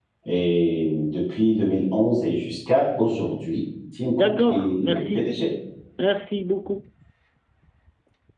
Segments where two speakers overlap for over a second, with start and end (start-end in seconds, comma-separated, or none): 4.1-5.3